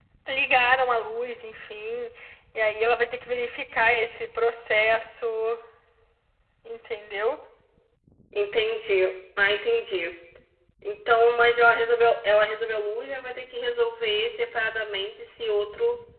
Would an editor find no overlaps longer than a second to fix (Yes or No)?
Yes